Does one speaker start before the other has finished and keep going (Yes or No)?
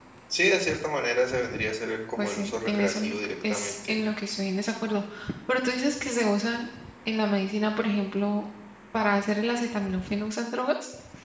Yes